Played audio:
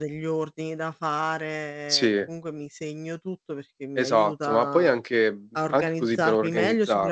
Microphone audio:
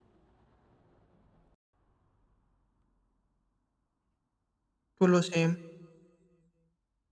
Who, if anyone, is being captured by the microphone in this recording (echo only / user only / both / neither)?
user only